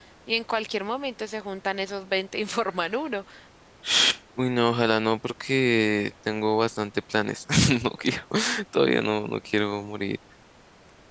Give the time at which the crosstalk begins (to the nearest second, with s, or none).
none